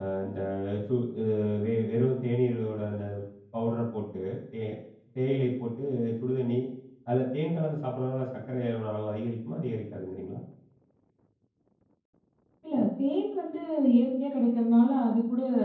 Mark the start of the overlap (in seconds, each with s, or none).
none